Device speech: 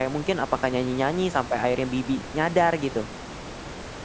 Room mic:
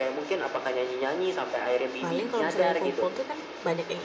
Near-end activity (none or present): present